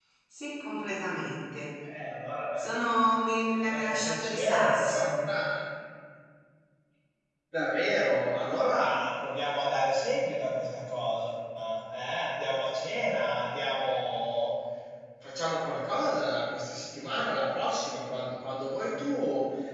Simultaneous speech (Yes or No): Yes